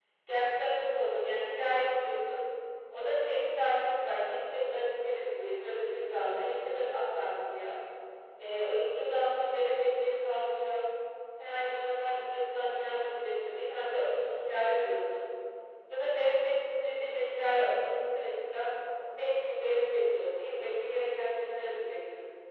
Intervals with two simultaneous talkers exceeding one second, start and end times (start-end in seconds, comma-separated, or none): none